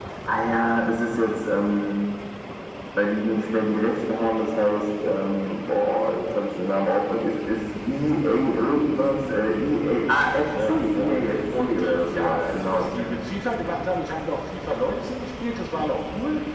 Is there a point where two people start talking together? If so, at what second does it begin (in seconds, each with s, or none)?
10.5 s